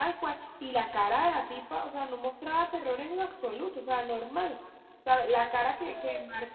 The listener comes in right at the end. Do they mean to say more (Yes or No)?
No